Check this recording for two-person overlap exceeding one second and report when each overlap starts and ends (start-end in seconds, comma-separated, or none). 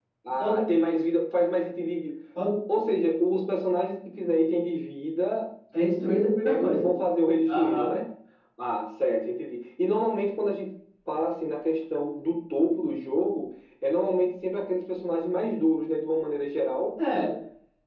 none